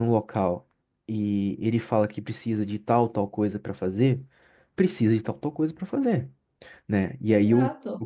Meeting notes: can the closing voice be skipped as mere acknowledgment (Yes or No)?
No